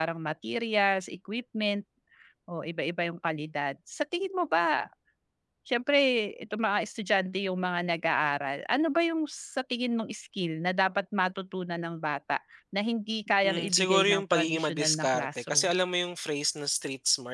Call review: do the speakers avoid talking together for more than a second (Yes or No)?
No